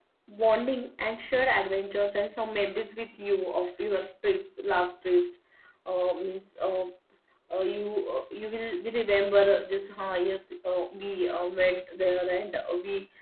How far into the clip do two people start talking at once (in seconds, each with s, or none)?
none